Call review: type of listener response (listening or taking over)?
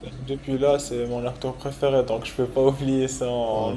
taking over